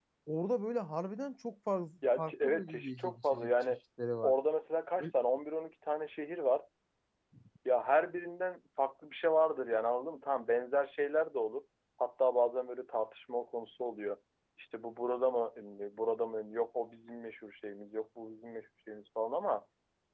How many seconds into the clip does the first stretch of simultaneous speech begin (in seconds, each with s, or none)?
2.0 s